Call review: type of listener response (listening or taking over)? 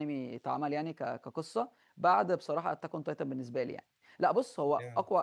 listening